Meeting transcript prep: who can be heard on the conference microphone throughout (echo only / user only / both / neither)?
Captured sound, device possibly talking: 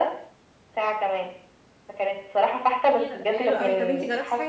both